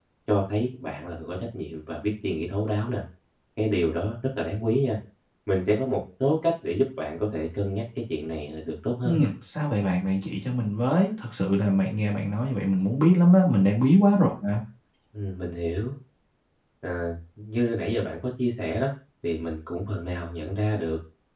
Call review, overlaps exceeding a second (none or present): none